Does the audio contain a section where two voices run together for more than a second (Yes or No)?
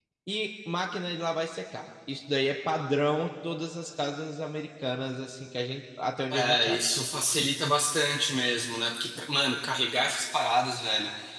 No